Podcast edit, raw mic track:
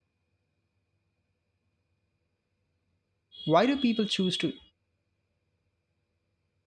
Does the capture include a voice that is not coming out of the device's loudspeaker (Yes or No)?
Yes